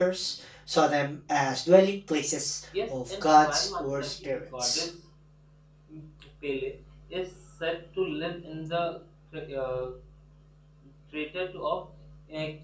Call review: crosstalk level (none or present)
present